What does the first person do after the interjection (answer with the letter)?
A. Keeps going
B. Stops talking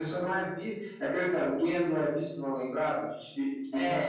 A